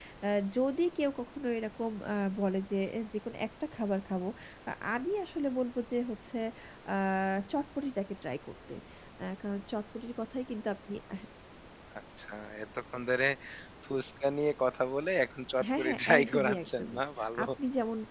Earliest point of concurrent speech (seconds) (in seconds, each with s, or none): 15.6 s